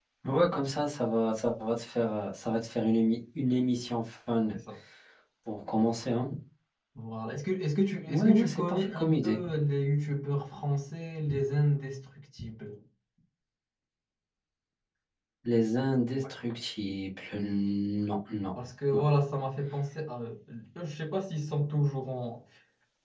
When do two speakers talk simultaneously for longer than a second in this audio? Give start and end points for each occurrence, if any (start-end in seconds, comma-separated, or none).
8.1-9.4